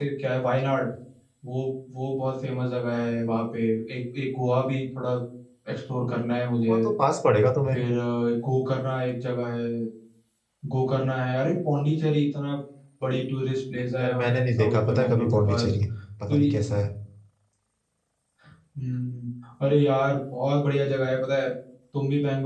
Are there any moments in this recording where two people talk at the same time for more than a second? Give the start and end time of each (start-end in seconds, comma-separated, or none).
14.0-15.7